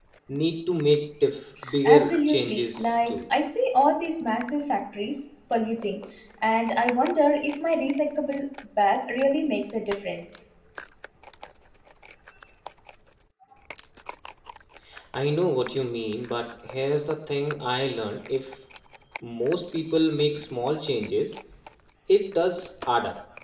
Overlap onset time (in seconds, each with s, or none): 1.9 s